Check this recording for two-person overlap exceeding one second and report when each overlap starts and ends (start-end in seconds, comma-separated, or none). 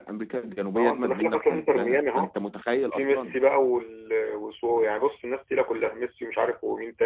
0.8-2.3